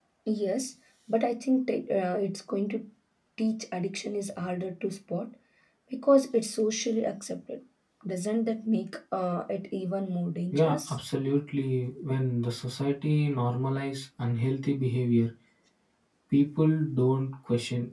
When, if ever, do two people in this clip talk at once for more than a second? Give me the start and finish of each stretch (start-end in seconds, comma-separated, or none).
none